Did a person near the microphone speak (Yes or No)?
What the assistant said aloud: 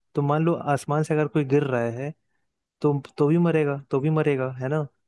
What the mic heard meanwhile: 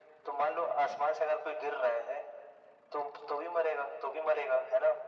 No